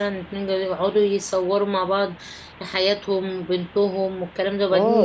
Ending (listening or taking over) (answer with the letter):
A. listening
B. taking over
B